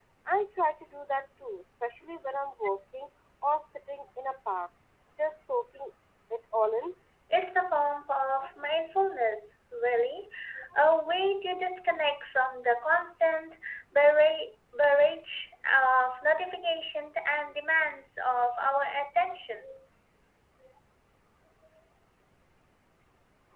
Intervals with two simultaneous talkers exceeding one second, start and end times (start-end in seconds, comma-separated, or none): none